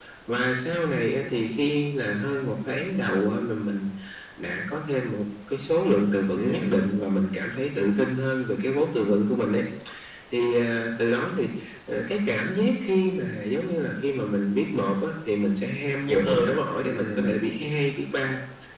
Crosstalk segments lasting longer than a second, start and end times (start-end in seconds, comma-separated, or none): 16.1-17.3